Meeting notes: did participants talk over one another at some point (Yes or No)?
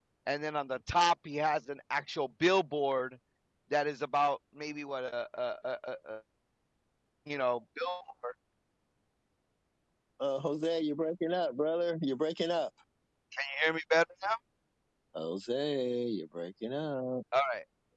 No